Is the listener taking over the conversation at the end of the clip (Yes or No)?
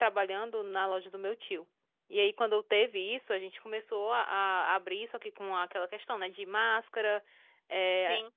No